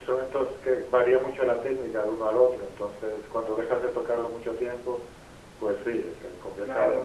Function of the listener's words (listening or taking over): taking over